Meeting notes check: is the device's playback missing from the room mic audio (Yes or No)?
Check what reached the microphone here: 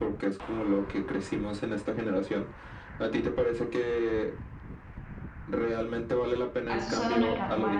No